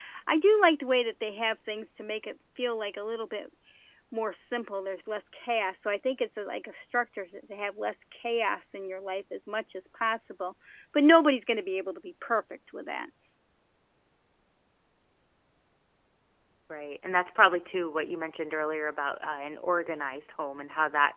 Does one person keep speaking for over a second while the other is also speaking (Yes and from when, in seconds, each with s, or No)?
No